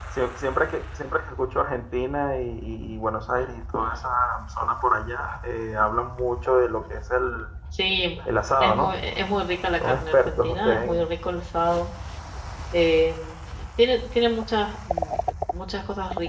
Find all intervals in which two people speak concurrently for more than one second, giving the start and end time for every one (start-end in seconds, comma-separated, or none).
9.8-11.0